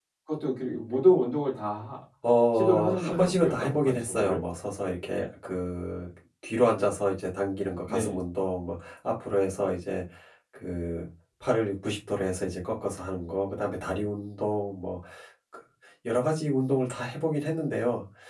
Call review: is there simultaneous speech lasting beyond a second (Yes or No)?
Yes